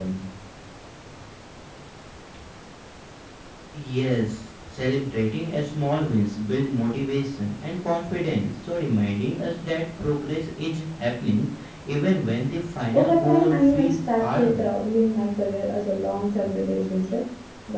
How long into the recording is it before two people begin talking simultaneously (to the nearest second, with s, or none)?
13 s